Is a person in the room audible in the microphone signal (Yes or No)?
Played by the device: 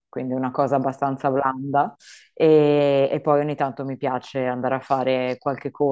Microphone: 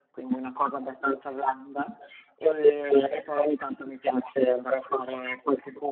No